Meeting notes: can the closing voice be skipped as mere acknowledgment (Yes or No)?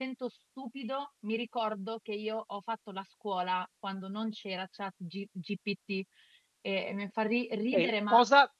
No